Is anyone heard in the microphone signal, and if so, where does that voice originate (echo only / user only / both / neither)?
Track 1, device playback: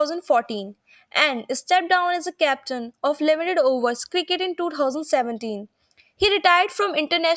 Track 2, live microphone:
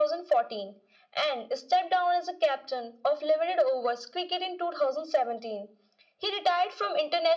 echo only